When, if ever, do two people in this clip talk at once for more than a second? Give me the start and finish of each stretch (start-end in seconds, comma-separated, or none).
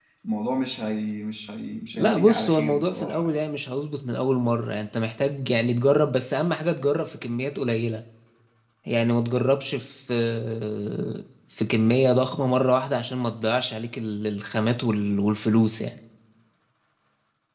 1.9-3.4